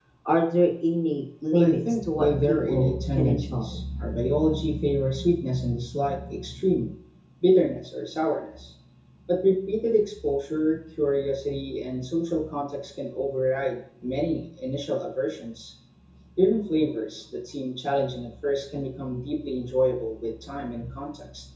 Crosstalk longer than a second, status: present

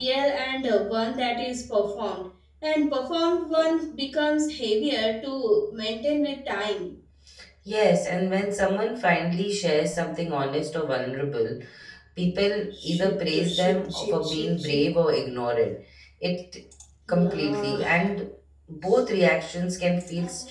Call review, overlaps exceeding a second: present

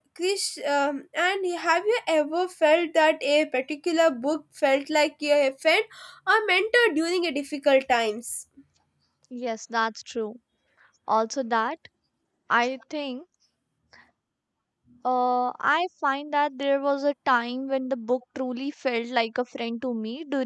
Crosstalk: none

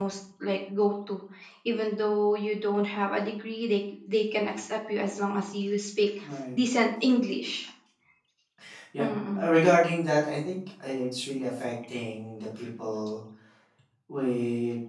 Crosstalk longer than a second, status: none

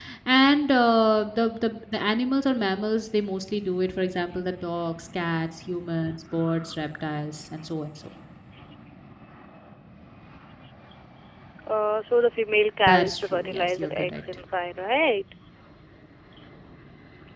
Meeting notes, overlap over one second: present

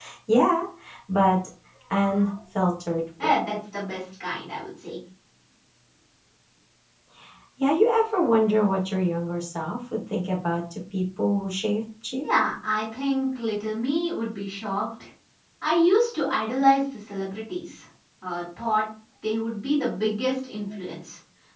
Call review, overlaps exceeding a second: none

